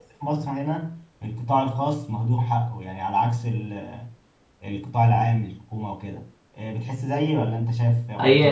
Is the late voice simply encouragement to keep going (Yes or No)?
No